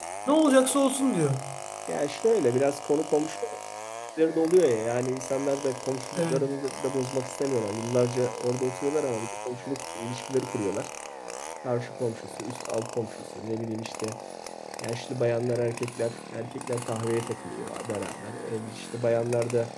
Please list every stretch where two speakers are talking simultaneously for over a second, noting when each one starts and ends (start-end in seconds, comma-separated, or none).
none